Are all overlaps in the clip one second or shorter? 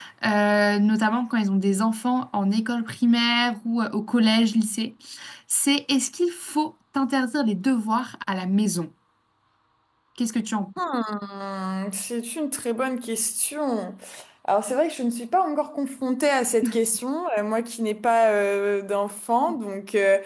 Yes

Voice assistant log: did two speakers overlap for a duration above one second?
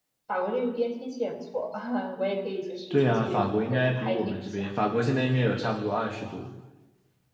Yes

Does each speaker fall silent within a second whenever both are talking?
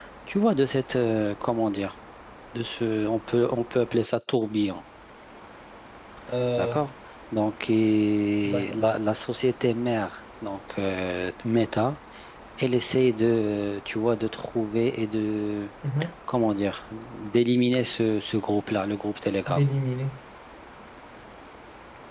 Yes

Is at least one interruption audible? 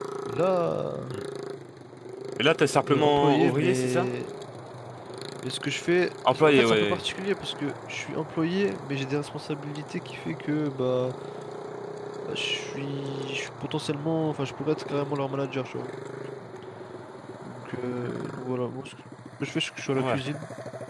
Yes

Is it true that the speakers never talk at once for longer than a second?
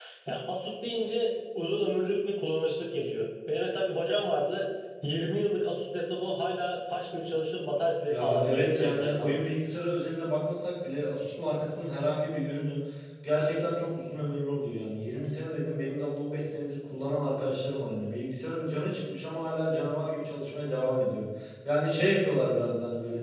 No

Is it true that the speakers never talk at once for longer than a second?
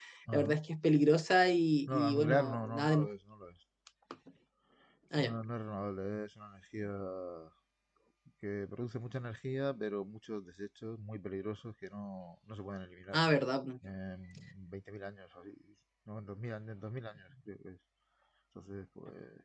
No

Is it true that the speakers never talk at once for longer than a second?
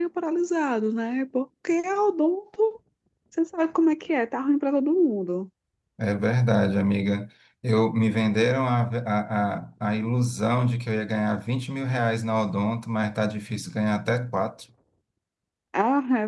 Yes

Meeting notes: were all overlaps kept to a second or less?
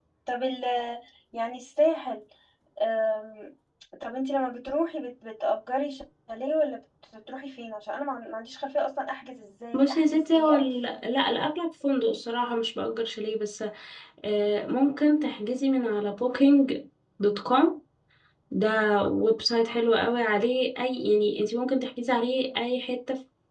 No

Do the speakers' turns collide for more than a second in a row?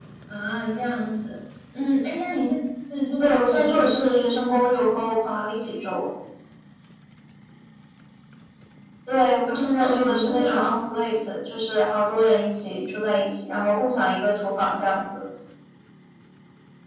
Yes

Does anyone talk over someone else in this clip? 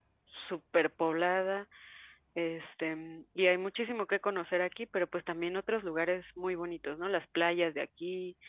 No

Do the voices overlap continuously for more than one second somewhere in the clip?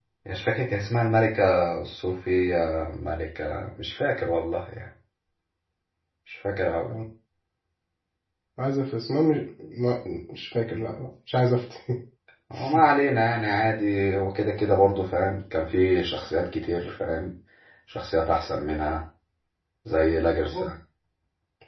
No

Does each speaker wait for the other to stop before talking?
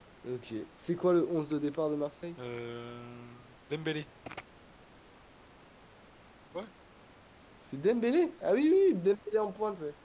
Yes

